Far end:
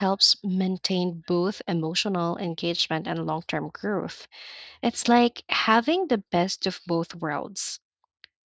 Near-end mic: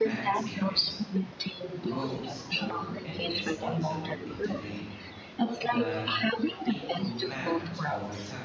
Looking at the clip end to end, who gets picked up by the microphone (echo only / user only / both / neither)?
both